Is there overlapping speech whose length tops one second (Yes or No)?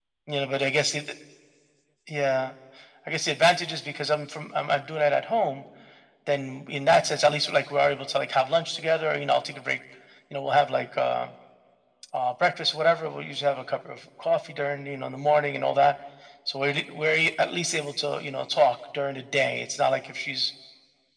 No